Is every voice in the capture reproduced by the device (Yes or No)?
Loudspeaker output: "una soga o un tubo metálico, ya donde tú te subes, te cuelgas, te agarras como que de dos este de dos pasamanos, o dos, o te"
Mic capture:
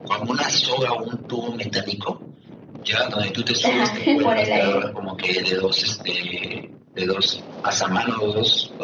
No